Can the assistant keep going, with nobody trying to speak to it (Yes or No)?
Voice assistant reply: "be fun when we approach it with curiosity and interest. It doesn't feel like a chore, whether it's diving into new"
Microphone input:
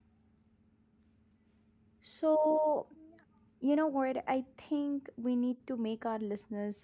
No